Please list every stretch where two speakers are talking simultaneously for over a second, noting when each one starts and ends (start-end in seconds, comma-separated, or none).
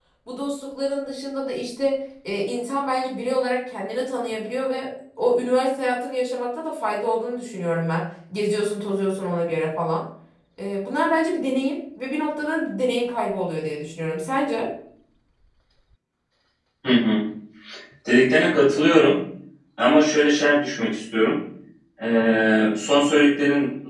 none